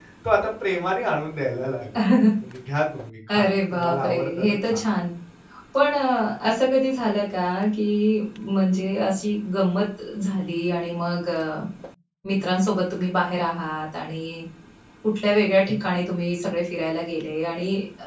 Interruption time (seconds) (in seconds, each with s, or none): 3.3 s